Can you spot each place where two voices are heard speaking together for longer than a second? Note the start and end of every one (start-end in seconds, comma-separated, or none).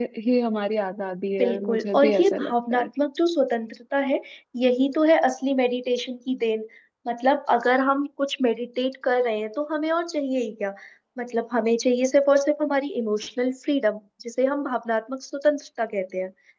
1.4-2.9